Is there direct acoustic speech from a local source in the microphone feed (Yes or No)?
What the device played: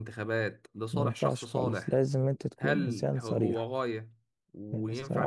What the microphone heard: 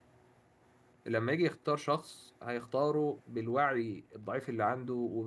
Yes